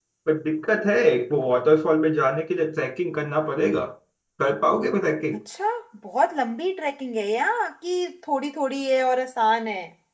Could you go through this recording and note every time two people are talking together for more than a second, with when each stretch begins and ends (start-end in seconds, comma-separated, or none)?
none